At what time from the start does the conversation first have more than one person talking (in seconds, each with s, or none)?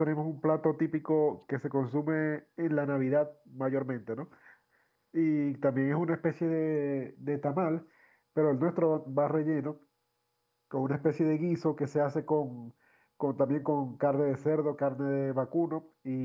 none